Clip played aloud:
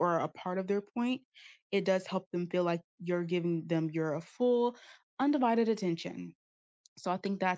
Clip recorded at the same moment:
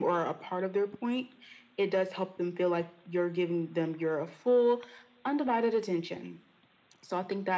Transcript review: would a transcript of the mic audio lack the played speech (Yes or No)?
No